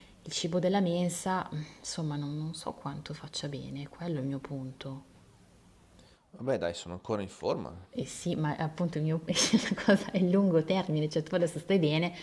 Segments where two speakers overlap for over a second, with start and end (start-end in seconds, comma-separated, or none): none